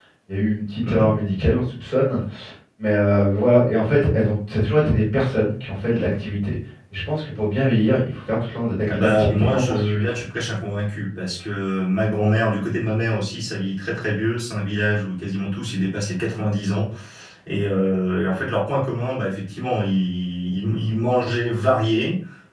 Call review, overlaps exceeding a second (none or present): present